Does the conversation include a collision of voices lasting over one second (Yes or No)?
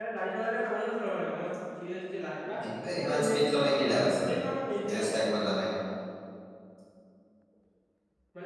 Yes